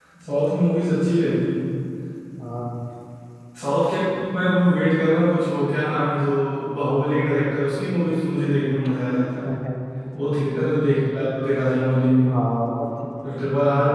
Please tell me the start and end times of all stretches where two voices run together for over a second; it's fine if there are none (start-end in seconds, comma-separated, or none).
none